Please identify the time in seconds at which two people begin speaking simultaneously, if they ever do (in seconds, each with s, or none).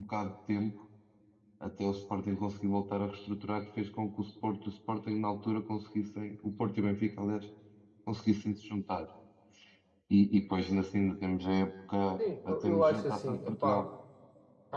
12.4 s